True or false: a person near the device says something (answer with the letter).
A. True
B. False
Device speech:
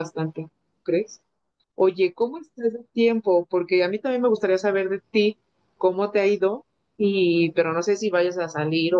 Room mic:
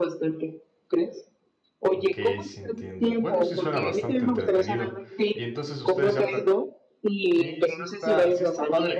A